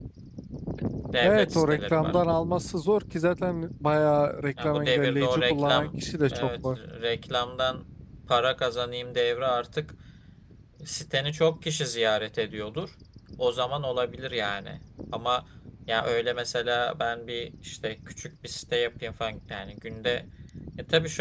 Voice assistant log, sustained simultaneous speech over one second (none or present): present